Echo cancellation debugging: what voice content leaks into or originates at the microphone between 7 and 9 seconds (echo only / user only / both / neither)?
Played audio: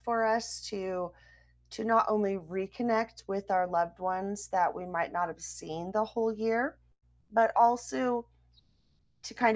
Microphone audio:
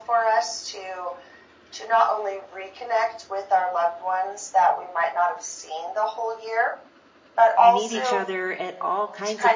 both